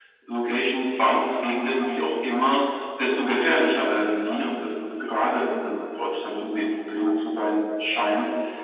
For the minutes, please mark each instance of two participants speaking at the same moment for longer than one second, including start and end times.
none

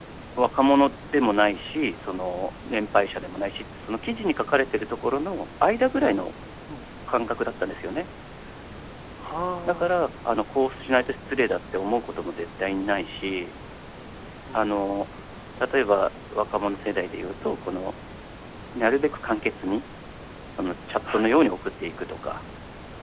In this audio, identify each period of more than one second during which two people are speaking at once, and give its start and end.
none

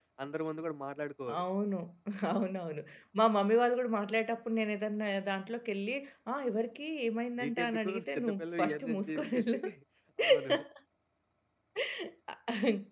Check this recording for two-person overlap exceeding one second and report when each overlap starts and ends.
7.4-9.6

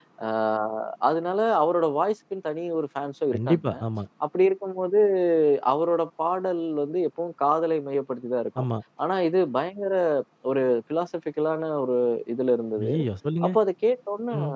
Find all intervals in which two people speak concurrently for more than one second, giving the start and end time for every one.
none

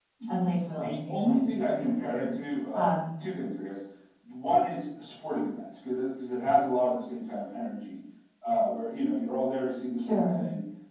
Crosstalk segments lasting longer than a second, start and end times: 0.8-2.2

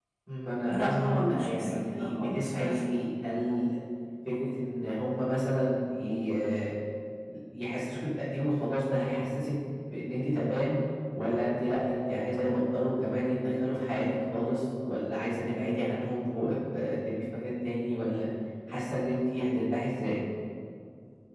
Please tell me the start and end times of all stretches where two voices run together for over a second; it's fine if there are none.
0.7-2.8

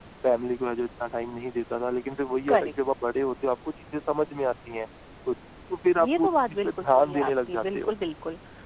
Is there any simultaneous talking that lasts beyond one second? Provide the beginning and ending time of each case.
6.0-8.0

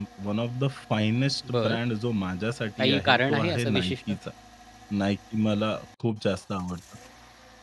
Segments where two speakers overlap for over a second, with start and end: 2.8-4.1

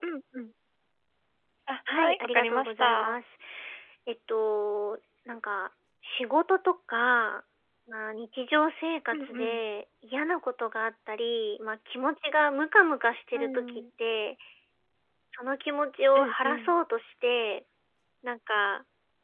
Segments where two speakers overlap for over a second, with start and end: 1.9-3.2

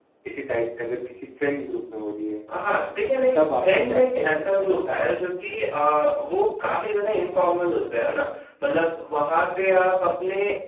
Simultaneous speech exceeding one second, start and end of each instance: 3.4-4.7

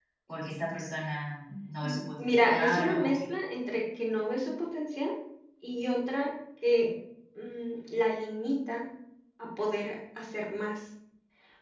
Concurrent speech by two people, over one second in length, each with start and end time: 1.8-3.2

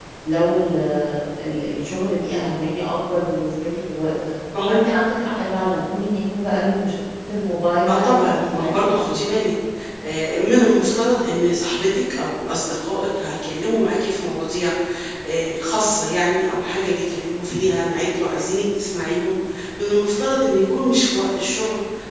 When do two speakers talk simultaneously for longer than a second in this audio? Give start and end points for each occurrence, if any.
7.9-9.2

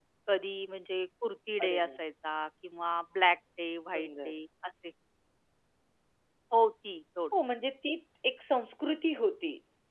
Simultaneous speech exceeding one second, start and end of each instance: none

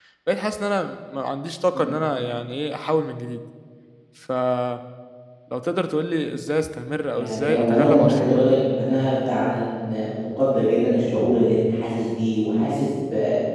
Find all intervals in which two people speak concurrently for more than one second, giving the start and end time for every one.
7.1-8.6

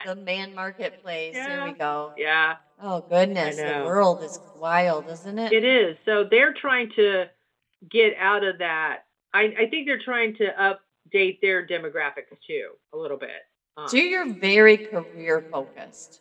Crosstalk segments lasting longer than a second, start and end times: none

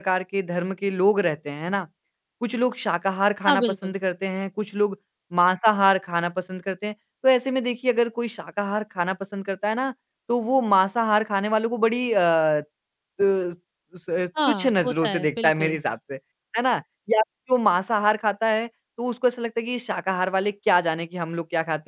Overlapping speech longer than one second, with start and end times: 14.5-15.8

